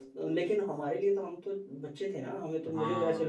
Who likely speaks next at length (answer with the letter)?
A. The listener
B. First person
B